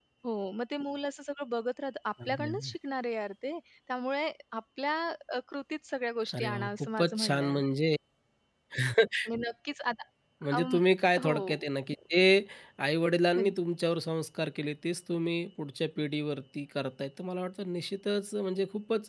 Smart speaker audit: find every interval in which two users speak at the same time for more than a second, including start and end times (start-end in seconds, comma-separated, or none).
6.3-7.6